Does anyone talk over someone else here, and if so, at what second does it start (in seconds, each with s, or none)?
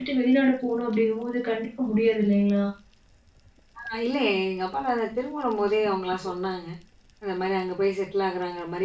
none